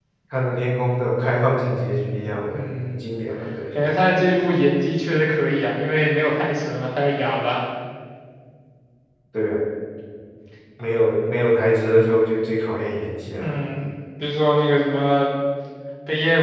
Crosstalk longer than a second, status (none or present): none